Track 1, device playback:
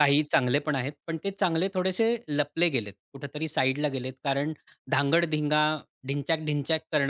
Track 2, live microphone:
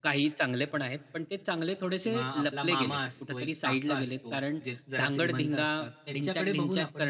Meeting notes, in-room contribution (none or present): present